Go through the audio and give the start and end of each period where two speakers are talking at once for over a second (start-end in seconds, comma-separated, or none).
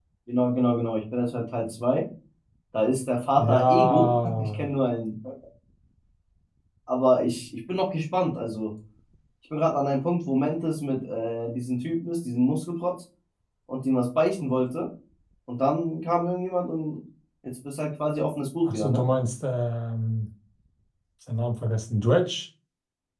3.4-4.7